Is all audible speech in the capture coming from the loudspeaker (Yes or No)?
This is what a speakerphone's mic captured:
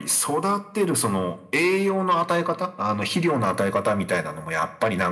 Yes